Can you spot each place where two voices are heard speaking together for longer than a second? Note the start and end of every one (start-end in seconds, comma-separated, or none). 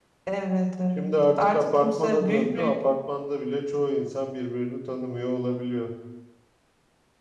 1.0-2.7